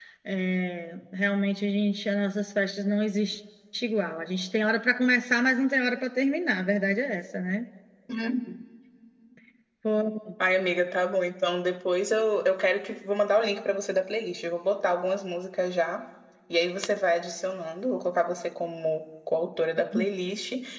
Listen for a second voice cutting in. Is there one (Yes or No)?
No